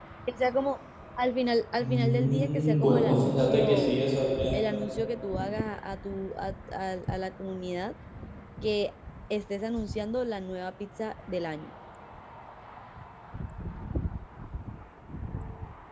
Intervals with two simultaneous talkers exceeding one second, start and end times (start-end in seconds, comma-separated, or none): 1.8-3.9